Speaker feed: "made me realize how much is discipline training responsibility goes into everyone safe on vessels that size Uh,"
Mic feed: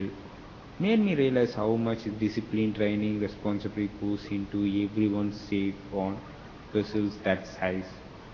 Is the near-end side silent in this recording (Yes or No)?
Yes